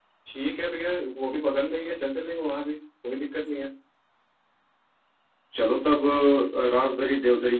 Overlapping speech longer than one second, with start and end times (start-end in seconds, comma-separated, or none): none